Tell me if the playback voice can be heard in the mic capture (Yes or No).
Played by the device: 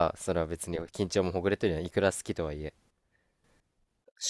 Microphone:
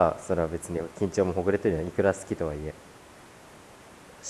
Yes